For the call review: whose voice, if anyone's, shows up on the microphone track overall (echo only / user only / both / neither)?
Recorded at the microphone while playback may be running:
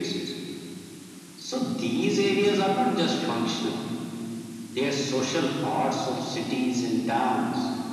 echo only